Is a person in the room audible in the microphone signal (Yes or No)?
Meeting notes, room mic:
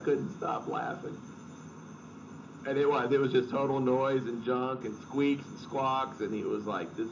No